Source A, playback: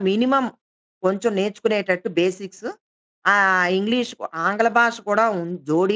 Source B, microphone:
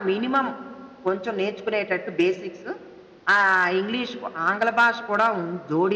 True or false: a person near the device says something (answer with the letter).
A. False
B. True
A